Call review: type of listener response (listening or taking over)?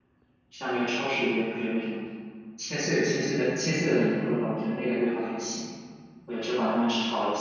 listening